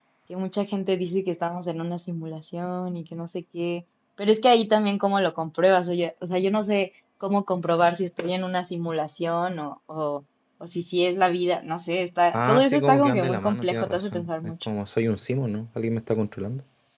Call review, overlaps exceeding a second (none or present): present